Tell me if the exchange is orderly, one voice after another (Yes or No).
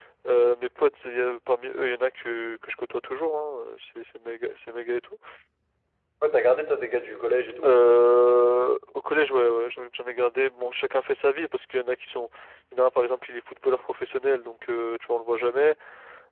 Yes